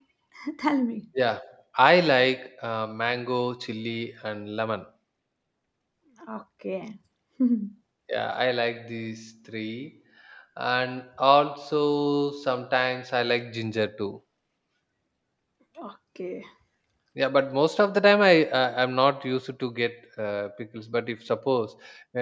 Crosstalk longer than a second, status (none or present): none